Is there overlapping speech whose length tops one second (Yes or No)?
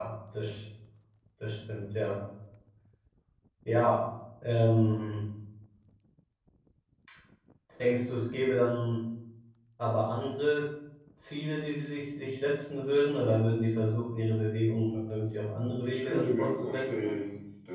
Yes